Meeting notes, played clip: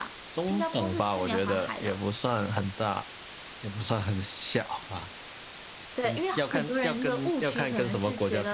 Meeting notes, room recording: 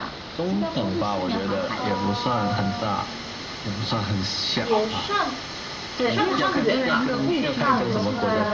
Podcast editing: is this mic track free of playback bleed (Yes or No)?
No